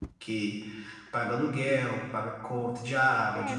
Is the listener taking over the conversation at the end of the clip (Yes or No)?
Yes